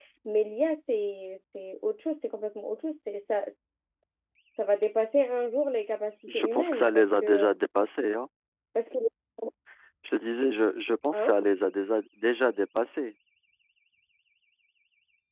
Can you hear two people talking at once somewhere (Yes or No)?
Yes